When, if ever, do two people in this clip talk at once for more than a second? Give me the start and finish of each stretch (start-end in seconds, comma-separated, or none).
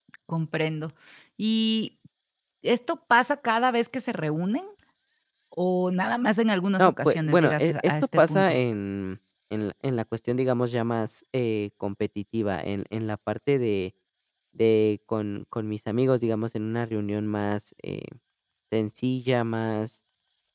6.8-8.6